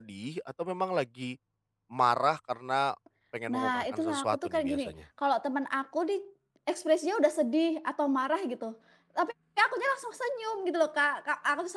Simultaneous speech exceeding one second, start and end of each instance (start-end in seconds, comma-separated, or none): 3.5-4.9